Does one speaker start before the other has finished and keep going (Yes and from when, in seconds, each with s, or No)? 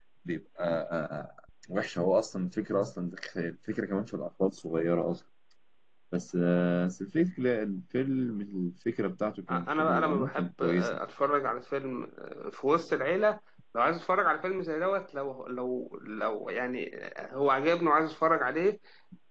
Yes, from 9.5 s